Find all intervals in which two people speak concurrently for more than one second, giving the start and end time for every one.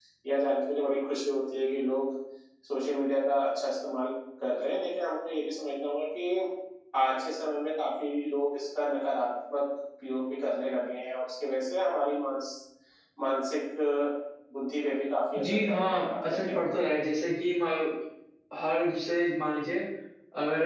15.4-16.7

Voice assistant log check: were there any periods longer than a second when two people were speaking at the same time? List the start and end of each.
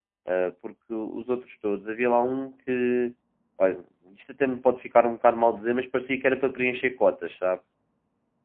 none

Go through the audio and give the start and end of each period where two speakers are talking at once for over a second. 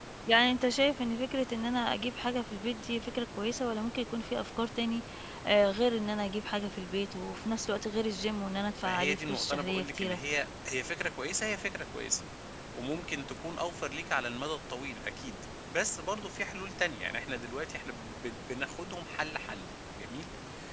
8.8-10.2

